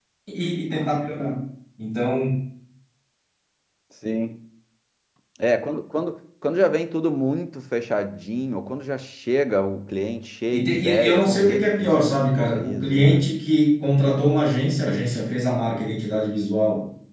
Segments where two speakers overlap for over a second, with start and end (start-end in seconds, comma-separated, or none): 10.5-13.2